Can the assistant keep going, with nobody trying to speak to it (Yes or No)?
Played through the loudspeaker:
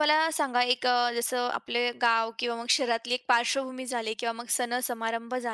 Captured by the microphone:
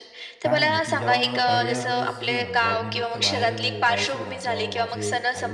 No